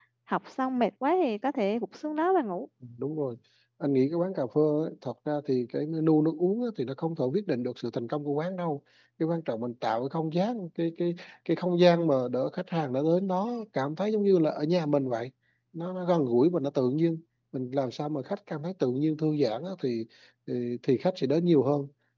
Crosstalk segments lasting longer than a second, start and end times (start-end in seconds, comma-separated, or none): none